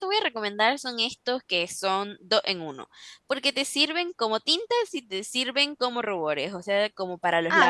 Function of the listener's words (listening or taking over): taking over